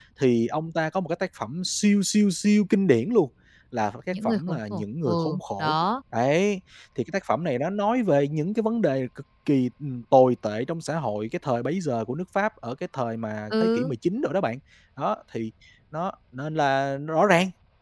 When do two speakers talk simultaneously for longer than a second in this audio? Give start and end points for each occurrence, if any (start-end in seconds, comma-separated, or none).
4.2-5.8